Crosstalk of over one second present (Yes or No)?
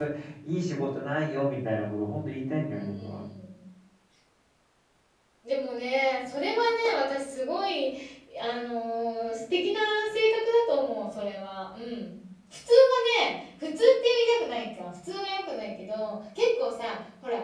No